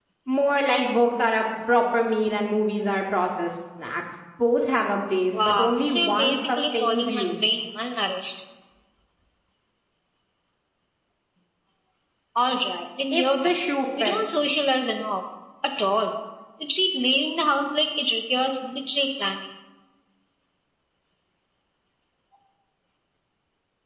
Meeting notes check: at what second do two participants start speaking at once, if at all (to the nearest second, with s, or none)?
5 s